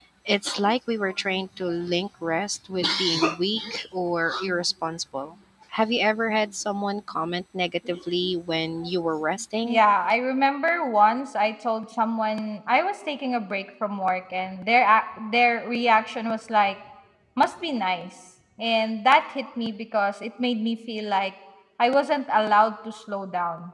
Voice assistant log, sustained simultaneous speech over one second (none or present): none